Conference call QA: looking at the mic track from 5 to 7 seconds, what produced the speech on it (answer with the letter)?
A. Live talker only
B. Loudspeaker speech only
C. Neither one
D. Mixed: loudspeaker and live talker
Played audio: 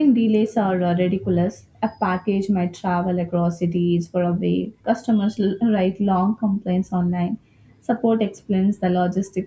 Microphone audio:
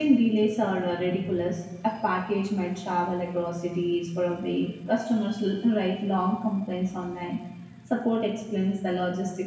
B